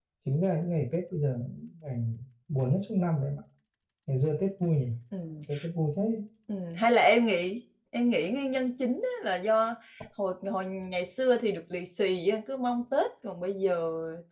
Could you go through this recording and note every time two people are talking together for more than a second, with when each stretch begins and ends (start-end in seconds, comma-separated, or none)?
none